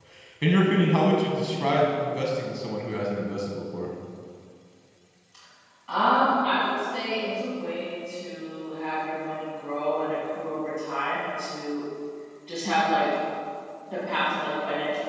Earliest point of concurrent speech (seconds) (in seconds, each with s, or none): none